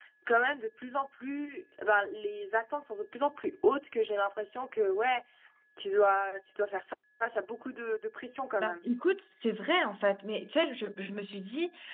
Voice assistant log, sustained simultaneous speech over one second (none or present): none